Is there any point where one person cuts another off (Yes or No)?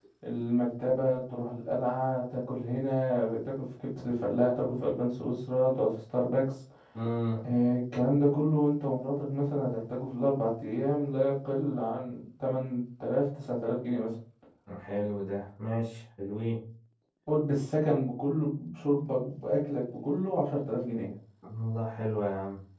No